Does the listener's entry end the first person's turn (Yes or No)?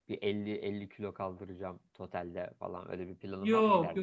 Yes